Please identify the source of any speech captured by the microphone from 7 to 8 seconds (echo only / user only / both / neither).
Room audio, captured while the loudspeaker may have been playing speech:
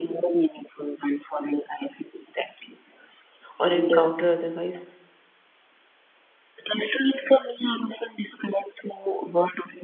echo only